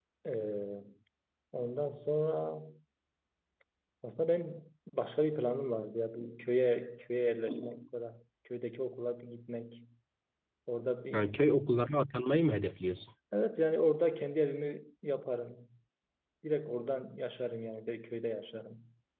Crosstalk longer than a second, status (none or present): none